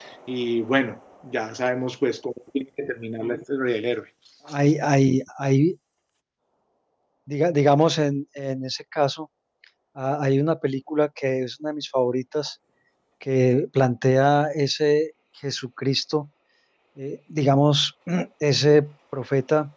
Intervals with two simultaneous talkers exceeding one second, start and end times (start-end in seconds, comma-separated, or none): none